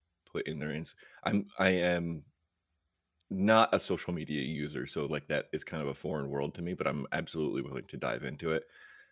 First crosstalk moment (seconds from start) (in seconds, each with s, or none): none